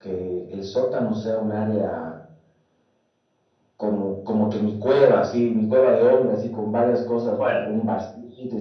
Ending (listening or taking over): listening